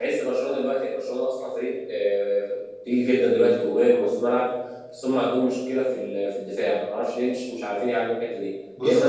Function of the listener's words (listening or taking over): listening